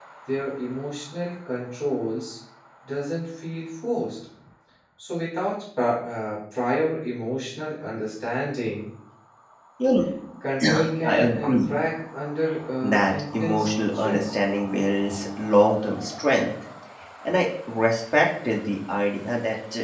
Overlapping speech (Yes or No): Yes